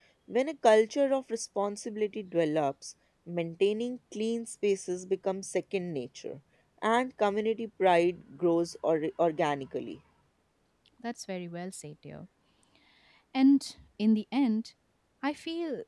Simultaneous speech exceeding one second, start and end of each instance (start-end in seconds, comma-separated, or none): none